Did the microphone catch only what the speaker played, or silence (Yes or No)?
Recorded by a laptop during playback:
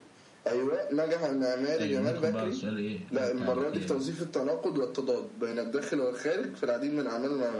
No